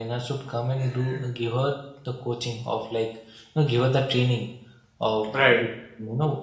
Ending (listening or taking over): listening